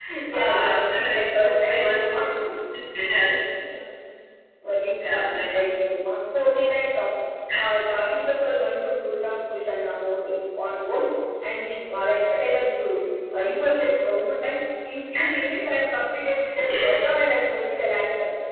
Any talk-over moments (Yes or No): Yes